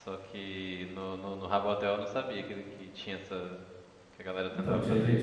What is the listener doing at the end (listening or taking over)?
taking over